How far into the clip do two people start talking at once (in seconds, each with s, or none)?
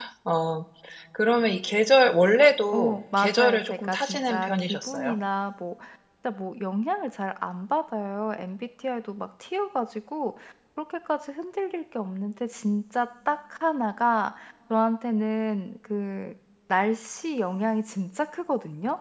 2.7 s